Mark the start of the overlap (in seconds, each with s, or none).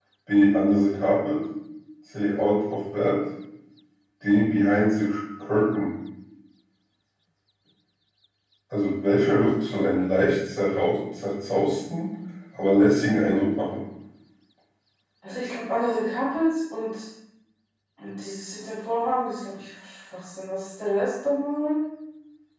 none